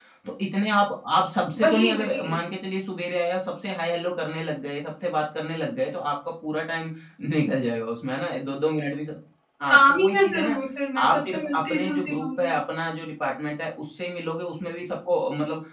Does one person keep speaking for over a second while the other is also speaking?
Yes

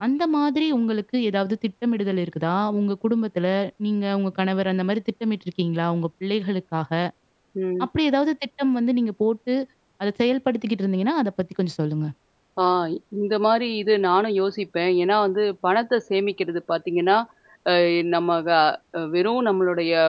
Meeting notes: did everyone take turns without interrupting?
Yes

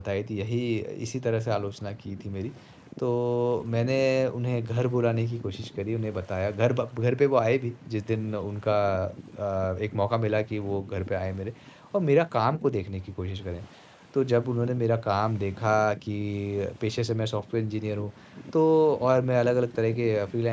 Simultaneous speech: No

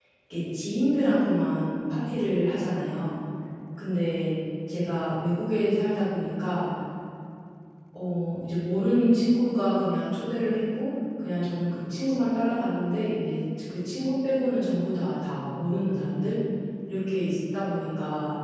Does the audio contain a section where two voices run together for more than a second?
No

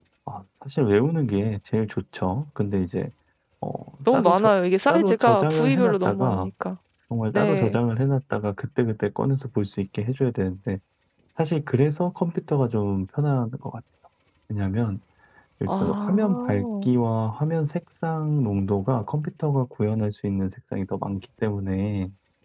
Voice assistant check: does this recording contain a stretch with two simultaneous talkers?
Yes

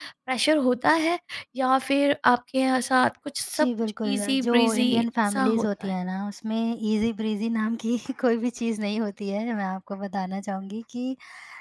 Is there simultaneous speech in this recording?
Yes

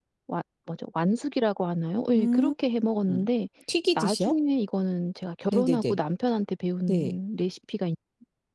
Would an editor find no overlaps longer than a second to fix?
Yes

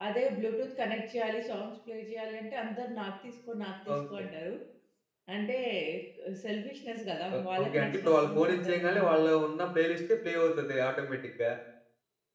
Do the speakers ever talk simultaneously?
Yes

